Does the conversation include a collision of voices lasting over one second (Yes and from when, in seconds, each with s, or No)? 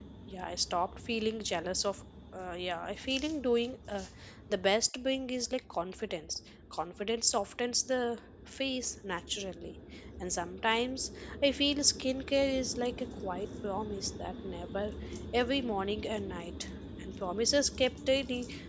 No